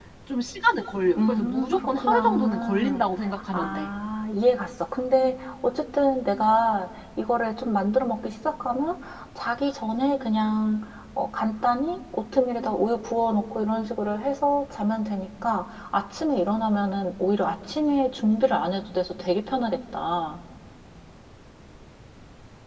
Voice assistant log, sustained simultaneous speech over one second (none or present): present